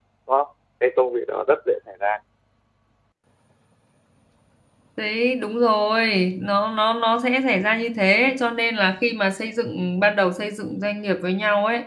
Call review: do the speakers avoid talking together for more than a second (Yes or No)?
Yes